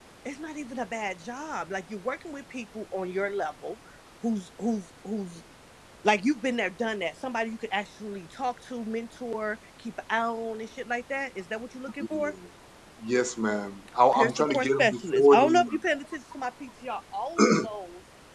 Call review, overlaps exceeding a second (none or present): present